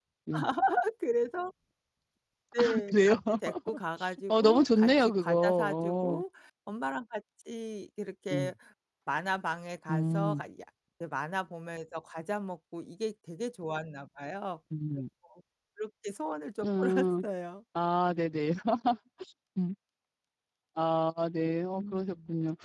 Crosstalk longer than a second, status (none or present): present